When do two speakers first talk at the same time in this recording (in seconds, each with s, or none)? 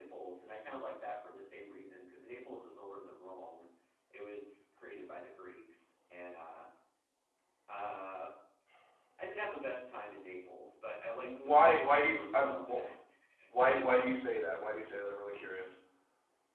11.2 s